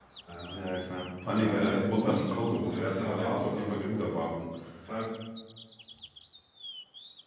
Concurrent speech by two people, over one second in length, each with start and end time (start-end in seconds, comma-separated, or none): 1.4-3.8